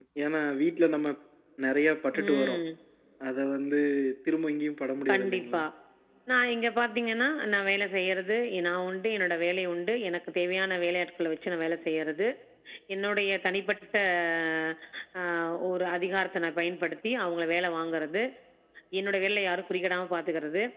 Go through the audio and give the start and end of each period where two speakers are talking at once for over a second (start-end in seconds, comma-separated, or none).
none